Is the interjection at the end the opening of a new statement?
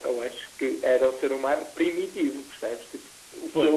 Yes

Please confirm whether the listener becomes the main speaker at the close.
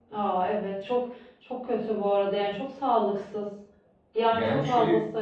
Yes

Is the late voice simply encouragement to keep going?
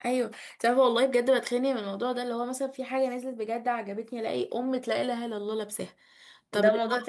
No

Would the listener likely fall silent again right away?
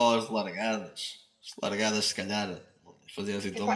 No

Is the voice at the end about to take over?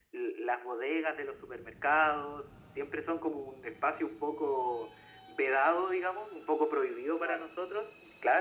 No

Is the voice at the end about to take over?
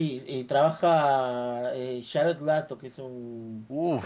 Yes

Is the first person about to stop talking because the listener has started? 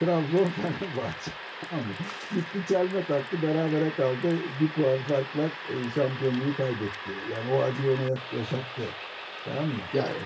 Yes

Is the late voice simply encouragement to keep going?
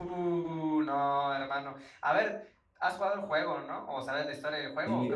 No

